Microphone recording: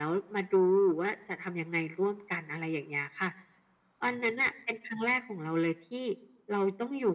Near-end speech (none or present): none